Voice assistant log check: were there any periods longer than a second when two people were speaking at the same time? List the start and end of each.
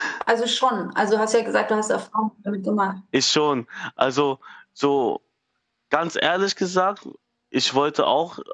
none

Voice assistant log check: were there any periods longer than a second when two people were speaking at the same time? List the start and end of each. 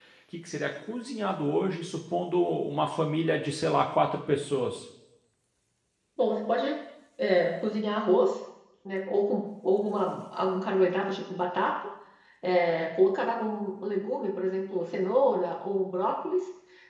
none

